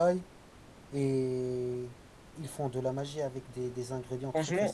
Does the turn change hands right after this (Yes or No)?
Yes